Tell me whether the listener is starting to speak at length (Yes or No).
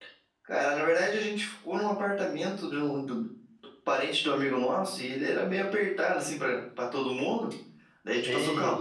No